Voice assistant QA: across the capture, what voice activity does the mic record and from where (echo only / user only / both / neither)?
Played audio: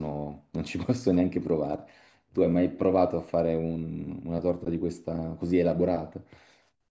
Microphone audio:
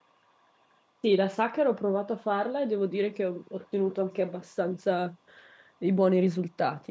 user only